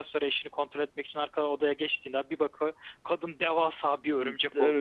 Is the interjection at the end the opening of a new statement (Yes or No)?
Yes